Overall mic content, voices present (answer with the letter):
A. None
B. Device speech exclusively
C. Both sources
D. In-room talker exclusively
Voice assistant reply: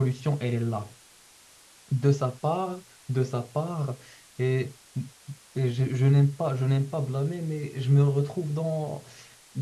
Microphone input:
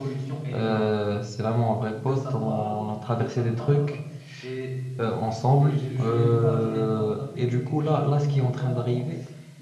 C